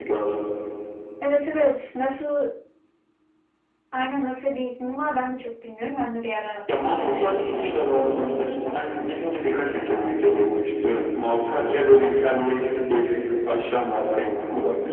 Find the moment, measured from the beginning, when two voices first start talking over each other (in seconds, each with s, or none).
7.0 s